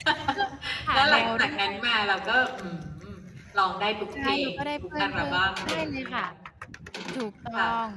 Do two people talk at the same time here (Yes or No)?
Yes